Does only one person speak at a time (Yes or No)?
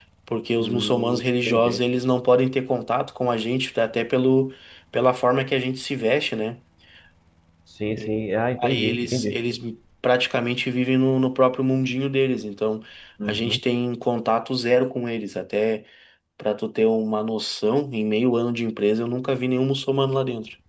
No